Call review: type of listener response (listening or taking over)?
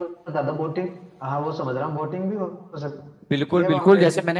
taking over